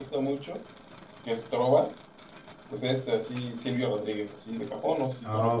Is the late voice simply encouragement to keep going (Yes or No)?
No